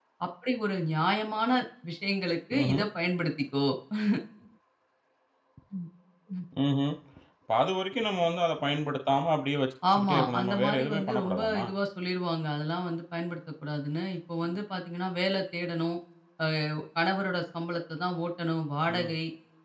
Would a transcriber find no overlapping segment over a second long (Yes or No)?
No